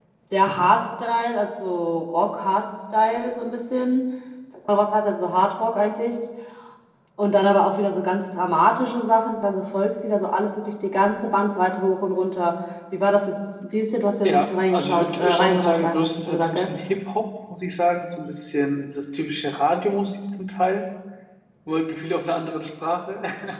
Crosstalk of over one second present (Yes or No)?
Yes